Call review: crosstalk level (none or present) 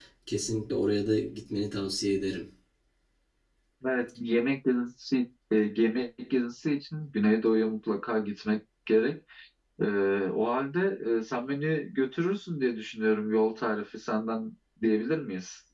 none